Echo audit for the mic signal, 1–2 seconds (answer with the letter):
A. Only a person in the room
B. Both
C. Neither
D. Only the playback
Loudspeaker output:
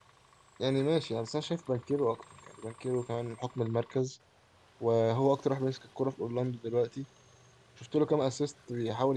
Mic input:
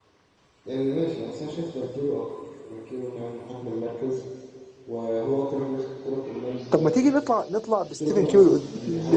D